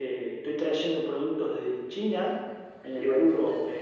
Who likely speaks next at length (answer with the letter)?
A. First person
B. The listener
A